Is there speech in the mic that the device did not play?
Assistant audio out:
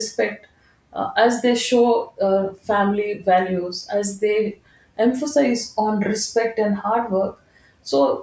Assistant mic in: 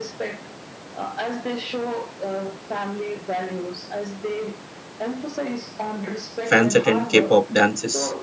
Yes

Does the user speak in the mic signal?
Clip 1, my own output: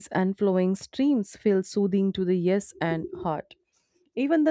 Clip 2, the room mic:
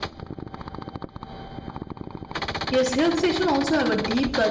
Yes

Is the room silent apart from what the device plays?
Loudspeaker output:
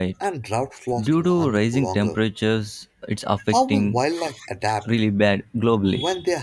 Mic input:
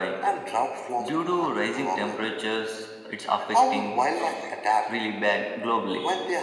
Yes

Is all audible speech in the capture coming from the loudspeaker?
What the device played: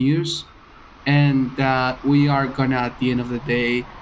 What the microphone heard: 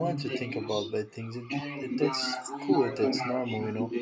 No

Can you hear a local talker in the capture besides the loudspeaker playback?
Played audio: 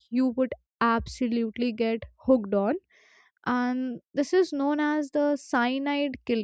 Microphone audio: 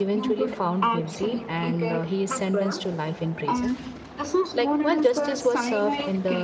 Yes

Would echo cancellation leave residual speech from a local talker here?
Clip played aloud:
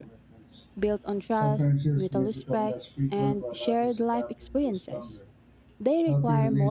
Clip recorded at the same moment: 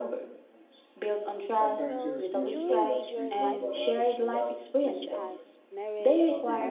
Yes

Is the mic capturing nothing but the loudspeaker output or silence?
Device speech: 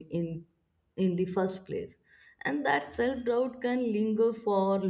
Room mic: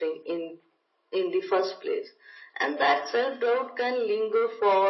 Yes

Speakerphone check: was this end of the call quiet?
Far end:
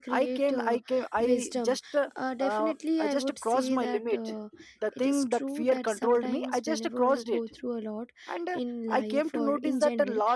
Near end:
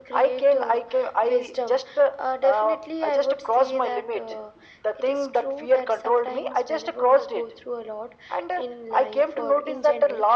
Yes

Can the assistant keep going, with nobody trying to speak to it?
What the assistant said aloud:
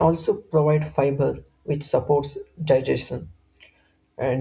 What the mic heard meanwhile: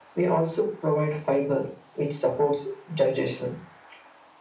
Yes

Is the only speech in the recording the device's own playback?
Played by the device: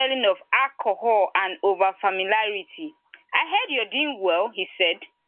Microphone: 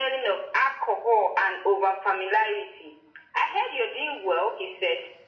Yes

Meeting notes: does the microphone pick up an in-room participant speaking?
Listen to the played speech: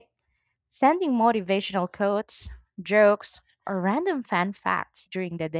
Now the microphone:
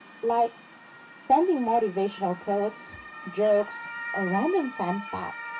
No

